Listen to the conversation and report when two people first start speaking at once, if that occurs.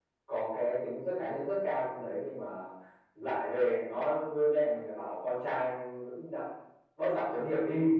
none

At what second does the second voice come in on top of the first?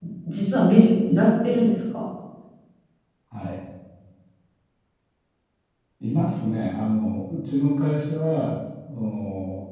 none

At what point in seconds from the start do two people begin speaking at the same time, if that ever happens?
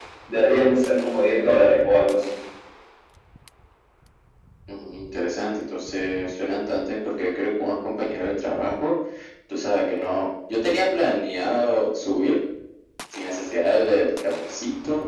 none

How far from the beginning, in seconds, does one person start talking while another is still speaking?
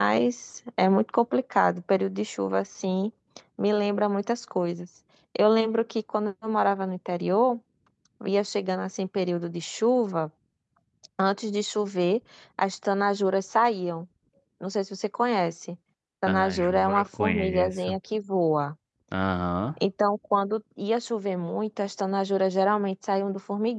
16.3 s

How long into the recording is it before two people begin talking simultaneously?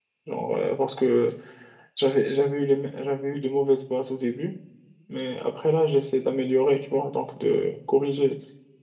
none

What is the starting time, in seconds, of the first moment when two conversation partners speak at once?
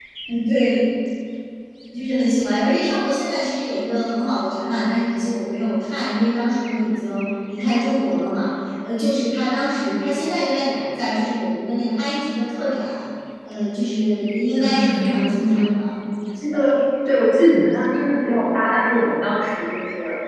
14.6 s

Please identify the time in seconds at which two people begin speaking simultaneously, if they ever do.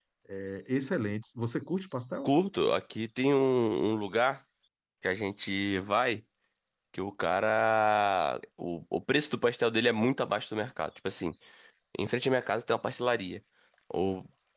none

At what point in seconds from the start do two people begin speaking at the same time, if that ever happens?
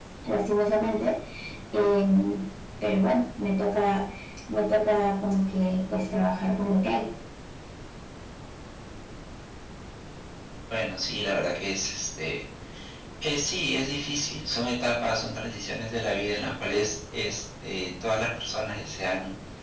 none

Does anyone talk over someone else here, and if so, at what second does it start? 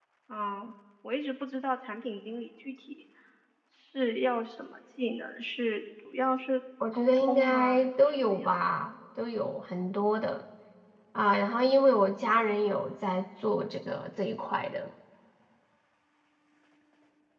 6.8 s

